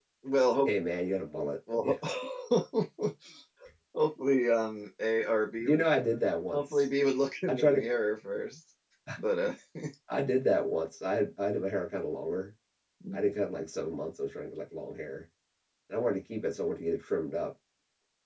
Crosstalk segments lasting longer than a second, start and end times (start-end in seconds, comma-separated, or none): none